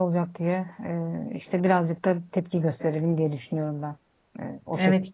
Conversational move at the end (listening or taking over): taking over